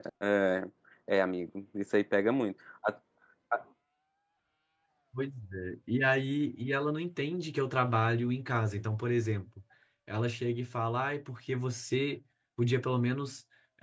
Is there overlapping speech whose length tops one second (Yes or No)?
No